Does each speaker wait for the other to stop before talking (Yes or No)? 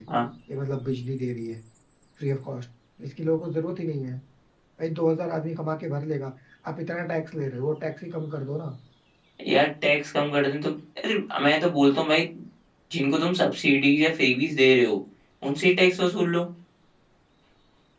Yes